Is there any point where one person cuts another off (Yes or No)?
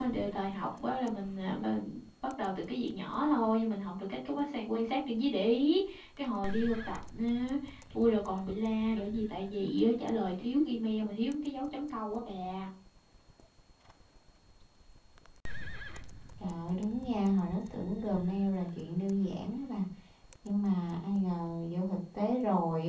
No